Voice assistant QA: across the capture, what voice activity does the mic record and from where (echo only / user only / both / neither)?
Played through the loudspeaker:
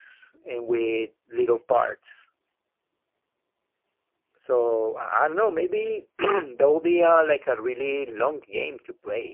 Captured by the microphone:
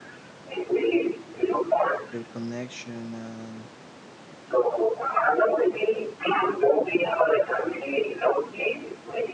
both